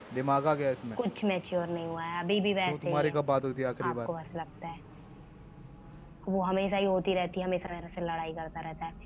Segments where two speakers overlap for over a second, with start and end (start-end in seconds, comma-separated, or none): none